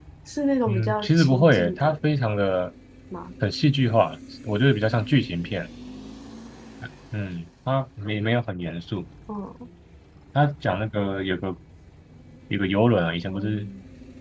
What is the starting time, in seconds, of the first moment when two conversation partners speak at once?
0.7 s

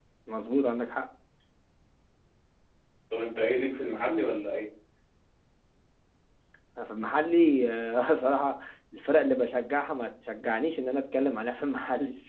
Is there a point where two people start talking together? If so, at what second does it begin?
none

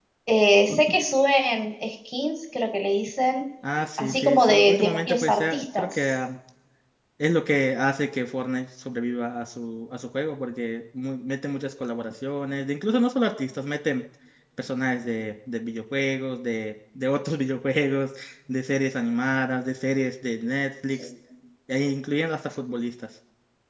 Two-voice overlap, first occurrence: 4.0 s

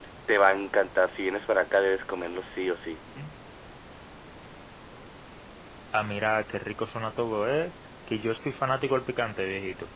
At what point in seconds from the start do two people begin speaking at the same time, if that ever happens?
none

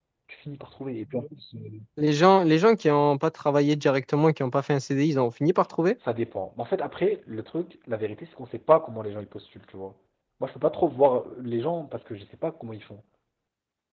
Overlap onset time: none

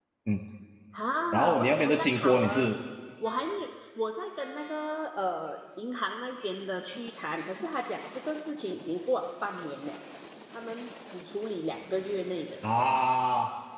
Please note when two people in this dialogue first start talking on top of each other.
1.3 s

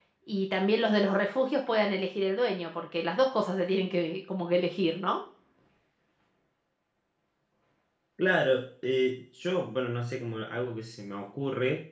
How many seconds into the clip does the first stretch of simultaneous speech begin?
none

